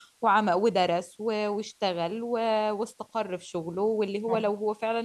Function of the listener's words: listening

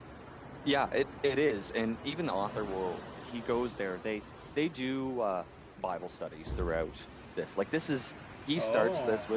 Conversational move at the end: listening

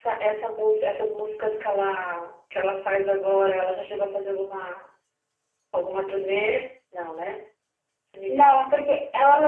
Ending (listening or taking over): taking over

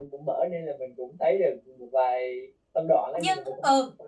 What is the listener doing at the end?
taking over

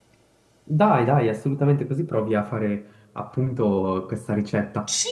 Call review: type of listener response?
taking over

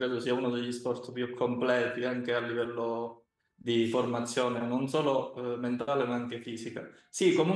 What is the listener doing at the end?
listening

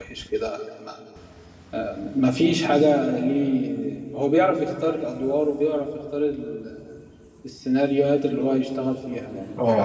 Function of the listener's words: taking over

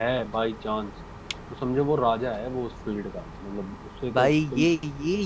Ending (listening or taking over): taking over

